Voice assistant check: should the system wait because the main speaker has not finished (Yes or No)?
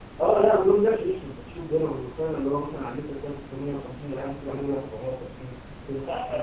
No